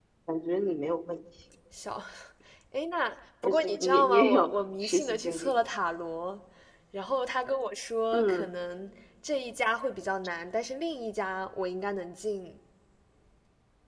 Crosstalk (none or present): present